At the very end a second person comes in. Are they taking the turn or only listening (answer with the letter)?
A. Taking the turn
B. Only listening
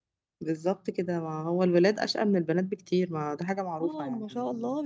A